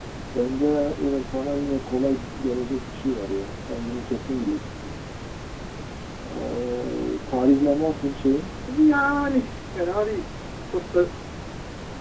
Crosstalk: none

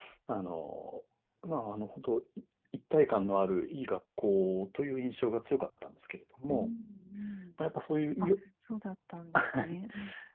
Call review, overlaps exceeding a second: none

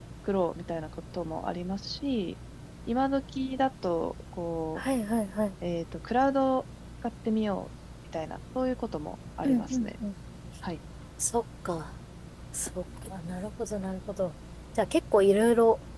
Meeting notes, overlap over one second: none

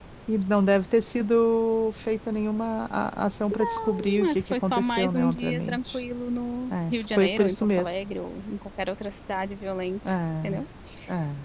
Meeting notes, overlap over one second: present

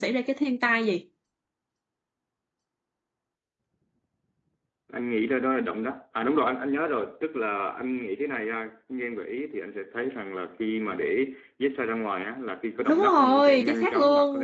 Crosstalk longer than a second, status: present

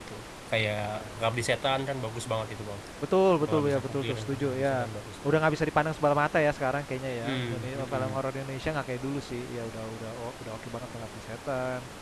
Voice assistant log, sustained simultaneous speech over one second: present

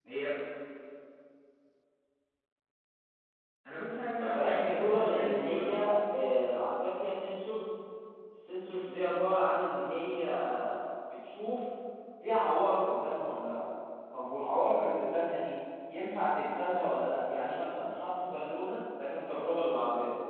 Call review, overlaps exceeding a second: present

